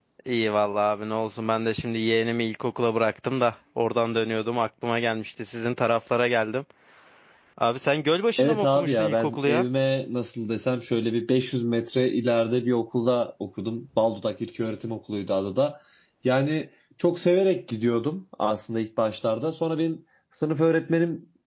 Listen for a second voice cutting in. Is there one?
Yes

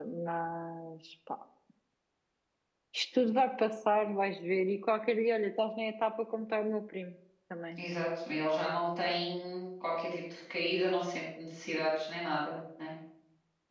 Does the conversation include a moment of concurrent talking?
No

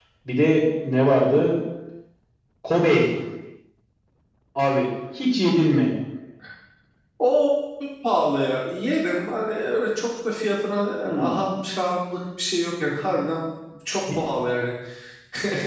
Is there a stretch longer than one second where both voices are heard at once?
No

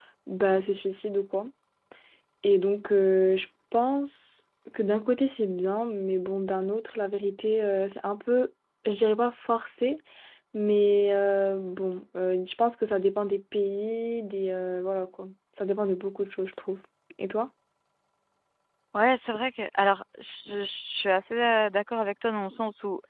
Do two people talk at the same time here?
No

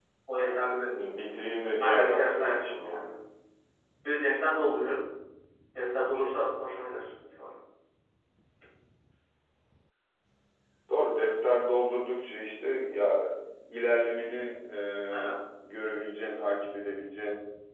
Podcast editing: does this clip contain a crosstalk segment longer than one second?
Yes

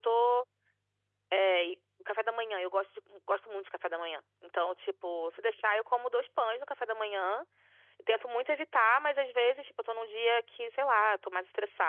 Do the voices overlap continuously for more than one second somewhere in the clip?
No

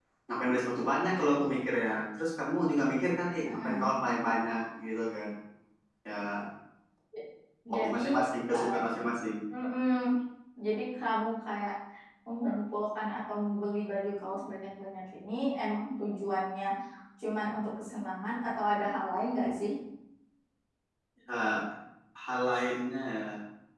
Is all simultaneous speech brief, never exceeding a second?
Yes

